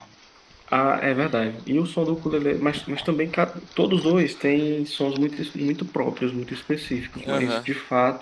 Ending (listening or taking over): listening